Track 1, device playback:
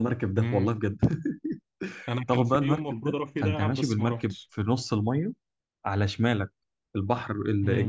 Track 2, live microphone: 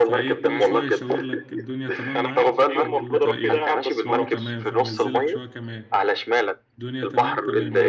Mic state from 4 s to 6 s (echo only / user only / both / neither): both